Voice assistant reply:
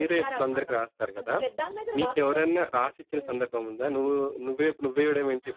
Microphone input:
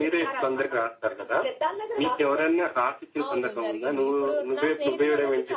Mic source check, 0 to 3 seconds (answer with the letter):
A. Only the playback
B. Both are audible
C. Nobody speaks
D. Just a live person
A